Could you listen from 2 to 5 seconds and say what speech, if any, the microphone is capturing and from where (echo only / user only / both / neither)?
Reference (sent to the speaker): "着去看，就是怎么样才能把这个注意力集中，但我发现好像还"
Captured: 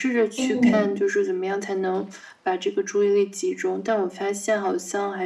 echo only